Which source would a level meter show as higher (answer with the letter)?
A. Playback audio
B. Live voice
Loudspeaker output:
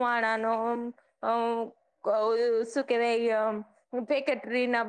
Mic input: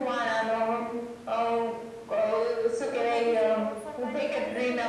A